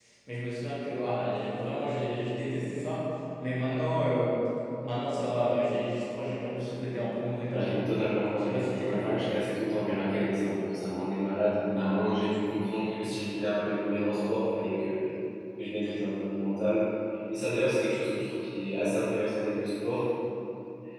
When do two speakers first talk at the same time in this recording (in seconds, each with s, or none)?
7.5 s